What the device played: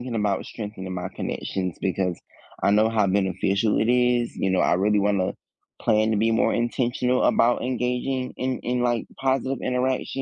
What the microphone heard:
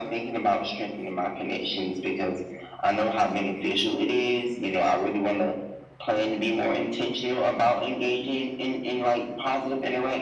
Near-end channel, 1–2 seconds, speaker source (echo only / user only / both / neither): echo only